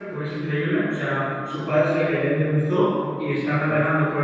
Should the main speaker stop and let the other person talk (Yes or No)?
No